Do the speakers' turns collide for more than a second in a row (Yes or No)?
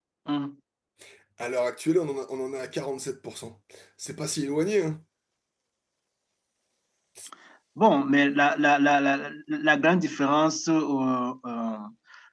No